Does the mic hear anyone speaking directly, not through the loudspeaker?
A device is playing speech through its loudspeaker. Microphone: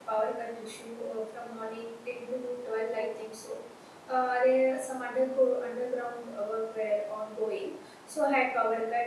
Yes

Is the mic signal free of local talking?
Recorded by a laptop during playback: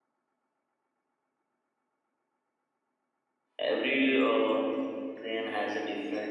No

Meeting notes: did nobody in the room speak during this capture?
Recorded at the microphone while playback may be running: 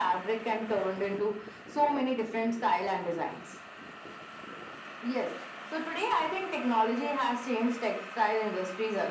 Yes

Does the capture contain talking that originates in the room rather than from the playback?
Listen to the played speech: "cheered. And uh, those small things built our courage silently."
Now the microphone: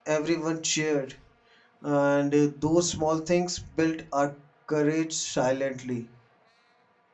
No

